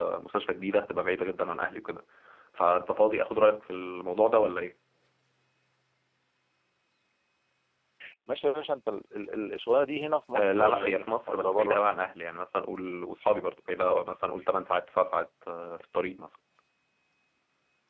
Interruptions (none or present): present